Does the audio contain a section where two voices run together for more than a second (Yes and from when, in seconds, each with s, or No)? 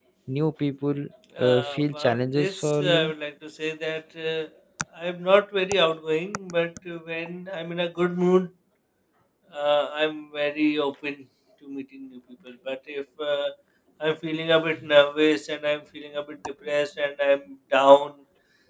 Yes, from 1.4 s